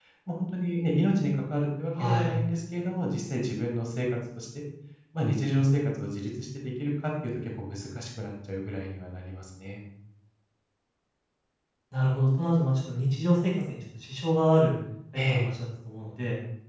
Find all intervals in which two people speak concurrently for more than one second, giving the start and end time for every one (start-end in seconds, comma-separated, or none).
none